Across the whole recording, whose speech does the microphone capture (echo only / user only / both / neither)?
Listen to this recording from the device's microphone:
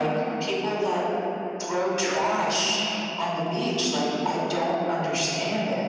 echo only